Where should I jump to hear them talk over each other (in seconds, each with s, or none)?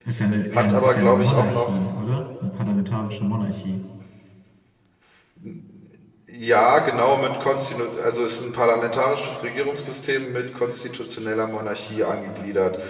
0.5 s